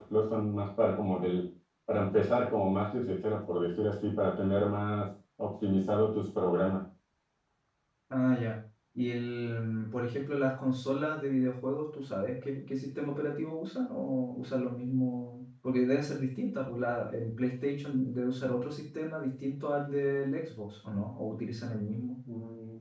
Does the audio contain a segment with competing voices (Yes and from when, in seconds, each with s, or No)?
No